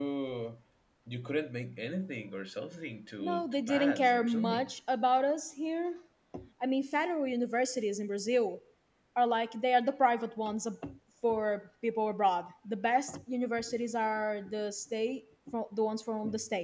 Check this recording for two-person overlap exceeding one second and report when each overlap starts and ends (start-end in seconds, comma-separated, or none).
3.2-4.7